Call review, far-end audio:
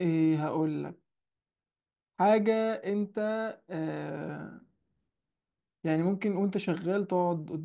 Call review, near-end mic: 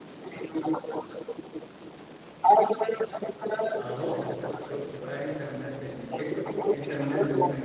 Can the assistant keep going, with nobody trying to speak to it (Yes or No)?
No